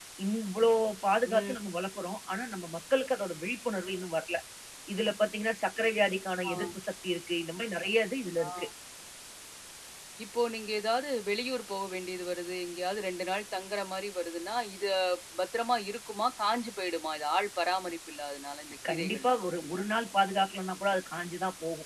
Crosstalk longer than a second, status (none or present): none